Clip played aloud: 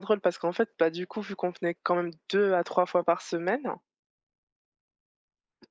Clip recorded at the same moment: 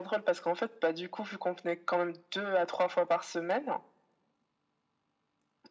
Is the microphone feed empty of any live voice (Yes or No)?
Yes